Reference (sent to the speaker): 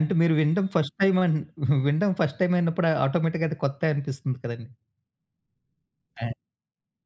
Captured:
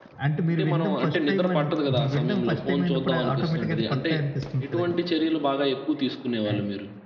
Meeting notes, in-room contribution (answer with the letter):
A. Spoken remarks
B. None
A